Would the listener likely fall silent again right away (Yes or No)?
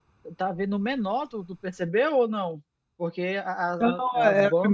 No